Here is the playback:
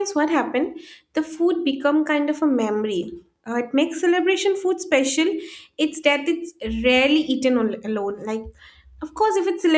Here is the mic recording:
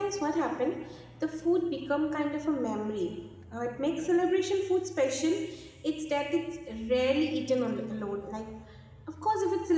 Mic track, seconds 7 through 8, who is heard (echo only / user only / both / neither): echo only